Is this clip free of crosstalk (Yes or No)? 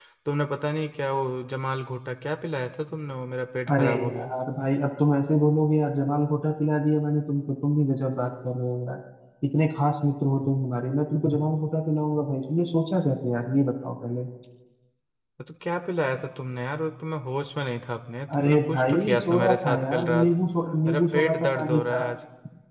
No